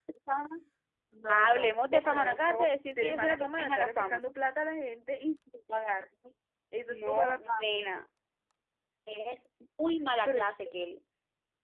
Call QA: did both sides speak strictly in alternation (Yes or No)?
No